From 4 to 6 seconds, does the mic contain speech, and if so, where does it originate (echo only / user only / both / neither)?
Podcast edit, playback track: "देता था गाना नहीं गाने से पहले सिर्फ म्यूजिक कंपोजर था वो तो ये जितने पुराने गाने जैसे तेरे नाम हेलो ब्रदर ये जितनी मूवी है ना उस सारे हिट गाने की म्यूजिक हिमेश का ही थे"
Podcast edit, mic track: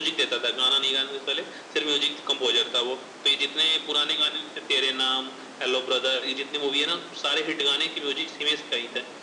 echo only